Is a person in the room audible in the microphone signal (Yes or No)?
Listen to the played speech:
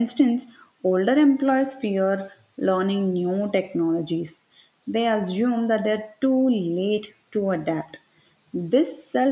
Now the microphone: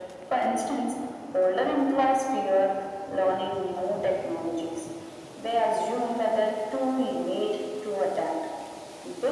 No